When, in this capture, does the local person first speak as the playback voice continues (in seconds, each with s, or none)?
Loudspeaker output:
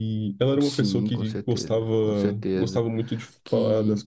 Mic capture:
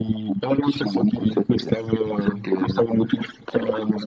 none